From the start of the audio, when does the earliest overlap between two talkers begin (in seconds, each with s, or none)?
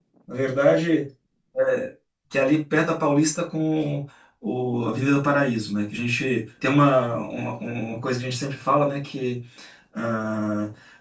none